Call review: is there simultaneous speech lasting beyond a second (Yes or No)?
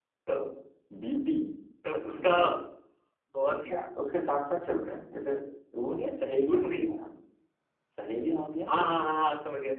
No